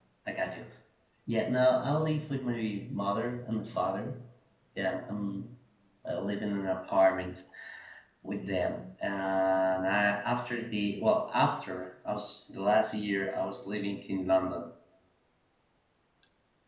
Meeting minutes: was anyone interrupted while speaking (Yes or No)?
No